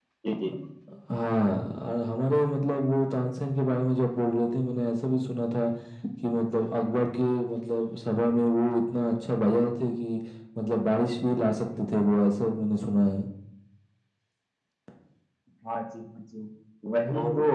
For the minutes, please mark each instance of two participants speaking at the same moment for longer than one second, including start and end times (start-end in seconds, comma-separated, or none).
none